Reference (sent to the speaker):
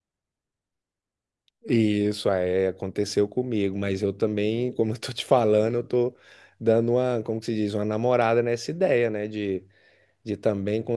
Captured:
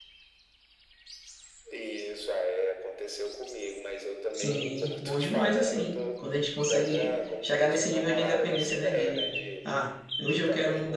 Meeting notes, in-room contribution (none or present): present